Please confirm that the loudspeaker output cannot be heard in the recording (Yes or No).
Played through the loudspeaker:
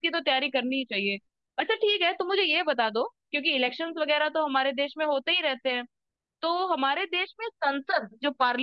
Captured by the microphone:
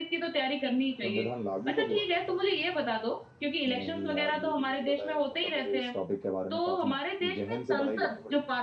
No